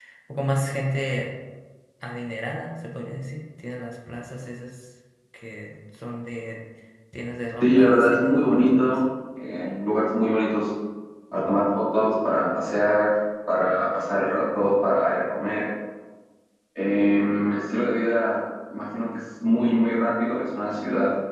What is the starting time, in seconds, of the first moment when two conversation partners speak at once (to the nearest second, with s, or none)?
8 s